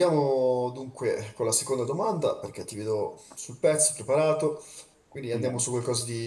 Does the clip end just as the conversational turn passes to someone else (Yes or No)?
No